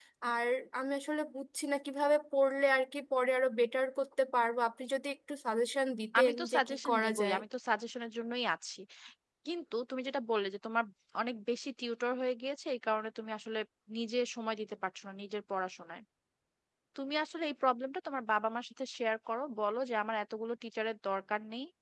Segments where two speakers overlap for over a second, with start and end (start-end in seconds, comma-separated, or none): 6.2-7.4